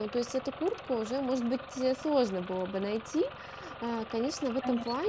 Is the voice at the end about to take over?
No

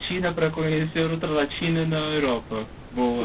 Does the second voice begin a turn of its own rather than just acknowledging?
Yes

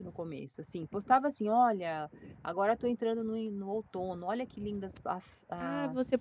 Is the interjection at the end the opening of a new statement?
Yes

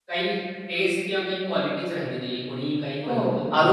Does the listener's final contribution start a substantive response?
Yes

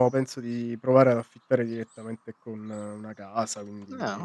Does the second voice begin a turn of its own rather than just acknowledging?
No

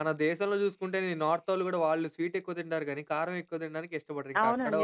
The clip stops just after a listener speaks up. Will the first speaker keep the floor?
No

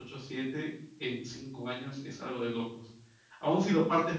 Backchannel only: Yes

